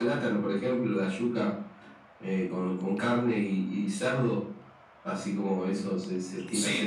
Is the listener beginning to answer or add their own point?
Yes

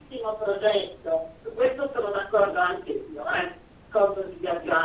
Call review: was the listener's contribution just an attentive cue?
Yes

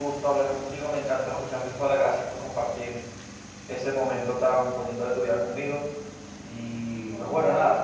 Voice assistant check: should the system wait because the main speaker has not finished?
Yes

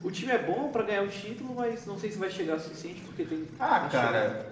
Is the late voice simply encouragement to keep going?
No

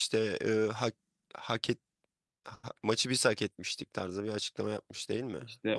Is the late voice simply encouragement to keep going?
No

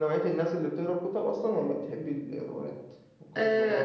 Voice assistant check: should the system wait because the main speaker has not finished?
No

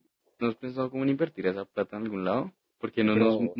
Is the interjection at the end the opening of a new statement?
No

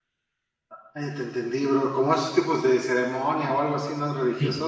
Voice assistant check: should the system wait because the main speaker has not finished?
No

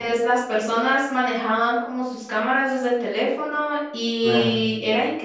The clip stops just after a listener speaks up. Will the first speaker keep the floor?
Yes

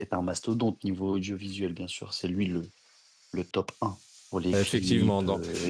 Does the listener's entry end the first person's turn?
Yes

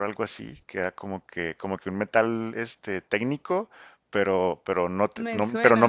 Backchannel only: Yes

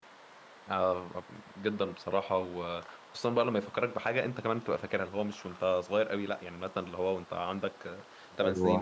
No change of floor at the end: Yes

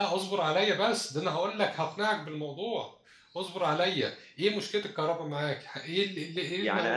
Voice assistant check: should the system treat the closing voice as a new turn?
Yes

